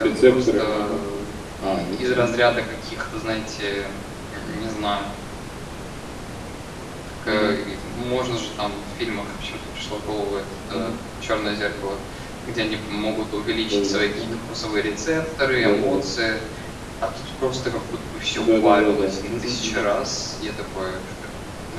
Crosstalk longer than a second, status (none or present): present